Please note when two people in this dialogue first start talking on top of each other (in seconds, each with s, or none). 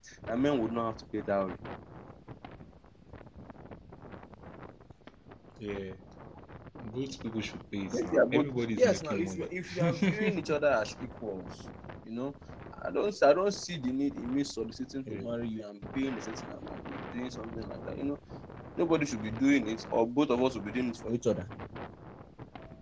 7.9 s